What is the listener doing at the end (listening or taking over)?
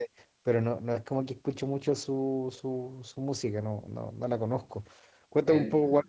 listening